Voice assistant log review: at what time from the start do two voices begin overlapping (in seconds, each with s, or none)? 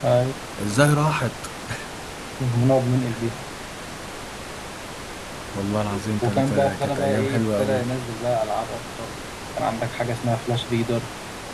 6.2 s